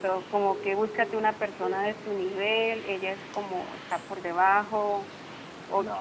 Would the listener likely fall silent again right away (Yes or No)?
Yes